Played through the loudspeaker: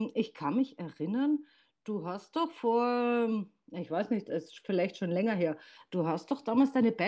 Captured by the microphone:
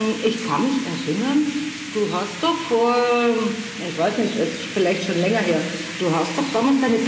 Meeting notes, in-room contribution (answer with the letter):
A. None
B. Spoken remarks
A